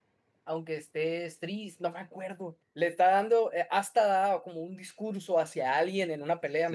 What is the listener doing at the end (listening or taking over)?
taking over